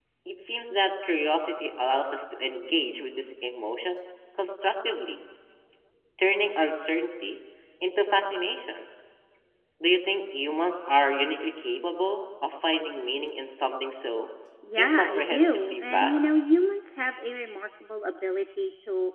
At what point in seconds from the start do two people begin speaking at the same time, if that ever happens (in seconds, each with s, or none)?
14.8 s